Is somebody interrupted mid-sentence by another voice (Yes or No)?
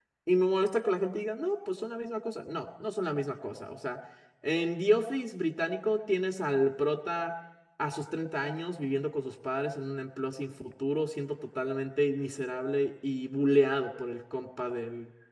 No